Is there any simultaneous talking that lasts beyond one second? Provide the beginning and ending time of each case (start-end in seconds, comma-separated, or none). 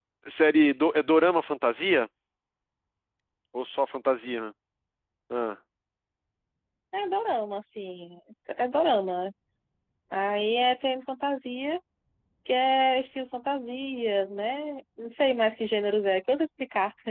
none